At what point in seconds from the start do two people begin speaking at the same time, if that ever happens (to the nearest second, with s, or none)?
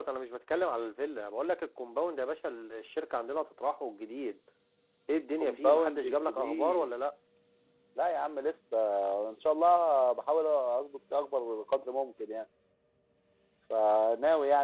5 s